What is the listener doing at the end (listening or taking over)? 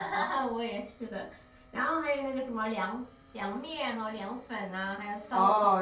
taking over